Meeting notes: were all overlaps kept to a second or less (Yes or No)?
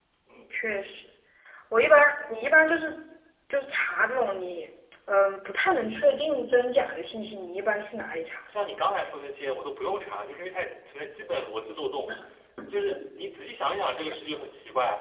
Yes